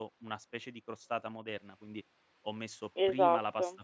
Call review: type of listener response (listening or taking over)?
listening